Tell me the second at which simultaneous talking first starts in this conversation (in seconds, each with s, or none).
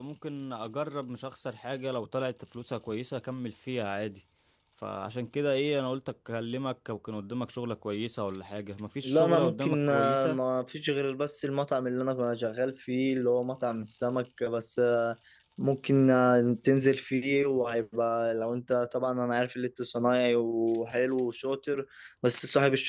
9.0 s